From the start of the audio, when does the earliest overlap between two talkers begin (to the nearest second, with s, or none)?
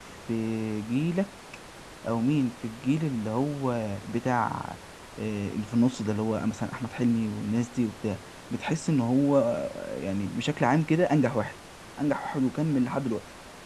none